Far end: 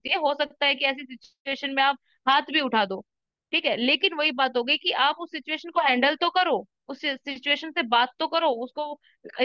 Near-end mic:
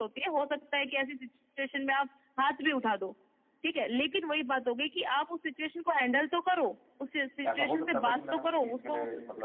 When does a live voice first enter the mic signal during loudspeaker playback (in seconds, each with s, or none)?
7.5 s